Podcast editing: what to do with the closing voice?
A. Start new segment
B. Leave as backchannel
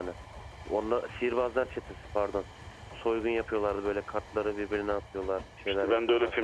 A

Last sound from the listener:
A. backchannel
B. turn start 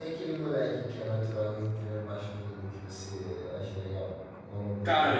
B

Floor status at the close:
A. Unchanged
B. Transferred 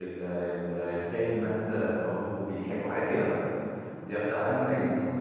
B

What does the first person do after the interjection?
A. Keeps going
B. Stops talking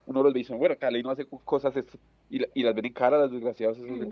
B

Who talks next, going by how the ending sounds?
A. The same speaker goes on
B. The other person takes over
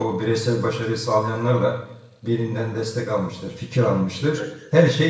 A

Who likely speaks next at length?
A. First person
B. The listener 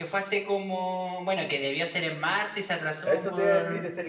B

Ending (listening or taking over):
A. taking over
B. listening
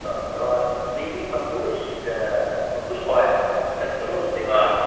B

